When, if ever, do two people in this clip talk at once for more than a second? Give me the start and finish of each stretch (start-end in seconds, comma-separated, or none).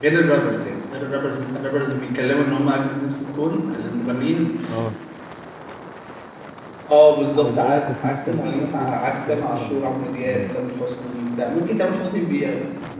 7.4-10.6